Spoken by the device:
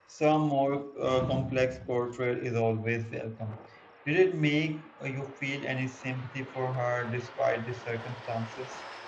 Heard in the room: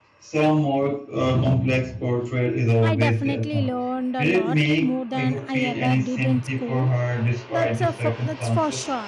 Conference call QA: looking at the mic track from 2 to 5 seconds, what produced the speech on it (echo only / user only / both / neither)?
both